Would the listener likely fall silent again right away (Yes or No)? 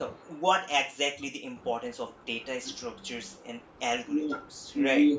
No